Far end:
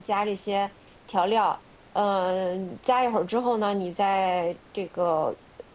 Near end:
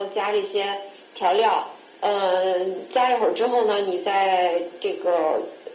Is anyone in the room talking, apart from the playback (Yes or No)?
No